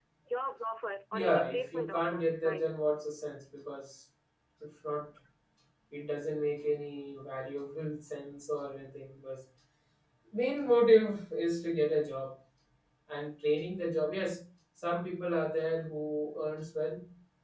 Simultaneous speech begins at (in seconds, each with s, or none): 1.1 s